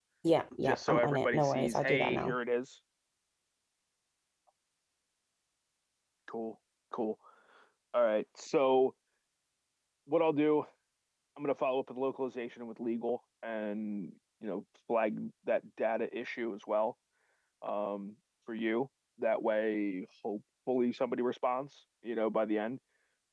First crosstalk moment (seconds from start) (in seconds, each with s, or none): 0.6 s